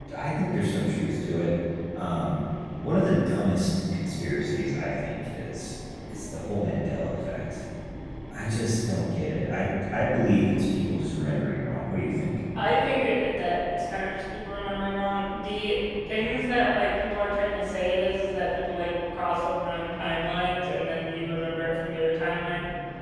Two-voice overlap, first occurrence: none

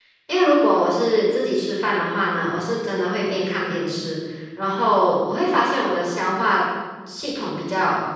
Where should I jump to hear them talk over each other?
none

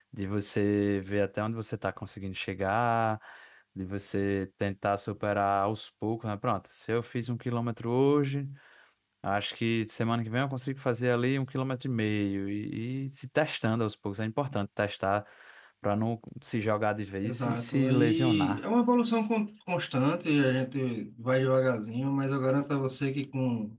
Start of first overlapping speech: 17.2 s

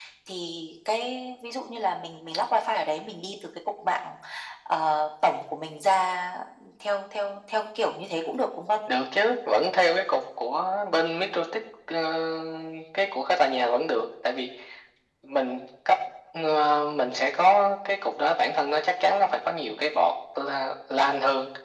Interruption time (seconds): none

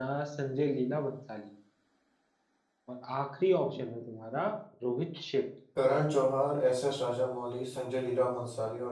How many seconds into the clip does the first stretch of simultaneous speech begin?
none

